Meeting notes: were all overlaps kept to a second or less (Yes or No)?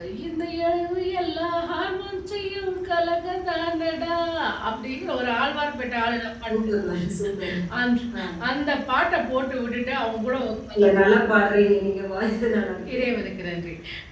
Yes